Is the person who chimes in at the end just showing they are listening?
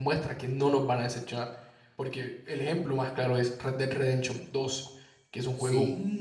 Yes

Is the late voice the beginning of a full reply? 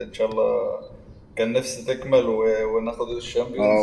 Yes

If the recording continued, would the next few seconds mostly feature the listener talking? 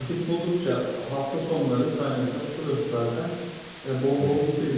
No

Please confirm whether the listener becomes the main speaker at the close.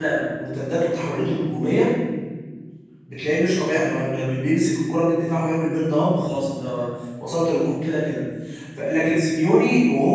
No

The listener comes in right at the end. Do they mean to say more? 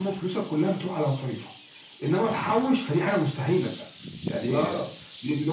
No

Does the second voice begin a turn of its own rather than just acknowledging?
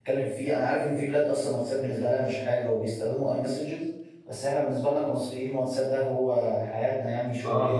Yes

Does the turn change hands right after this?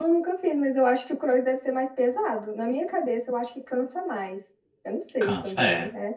Yes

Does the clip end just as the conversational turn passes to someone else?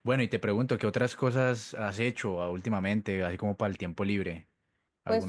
Yes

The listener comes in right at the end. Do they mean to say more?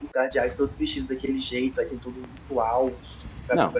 No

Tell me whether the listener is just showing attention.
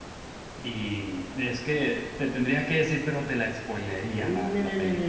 No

